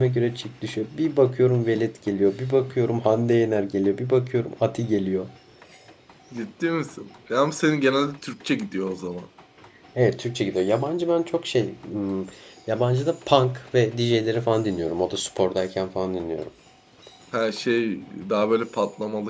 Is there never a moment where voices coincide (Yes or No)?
Yes